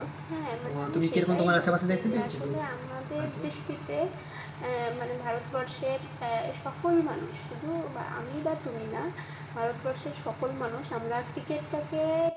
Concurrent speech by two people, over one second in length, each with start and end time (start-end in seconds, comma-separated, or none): 0.6-2.7